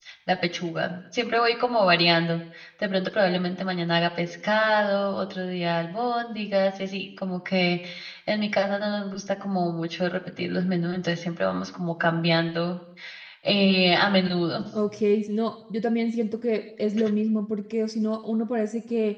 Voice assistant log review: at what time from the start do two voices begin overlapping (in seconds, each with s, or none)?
none